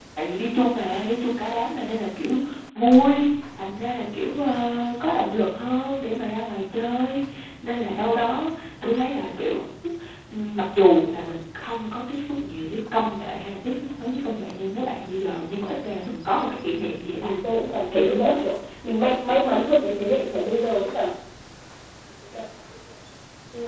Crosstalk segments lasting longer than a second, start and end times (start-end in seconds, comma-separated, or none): none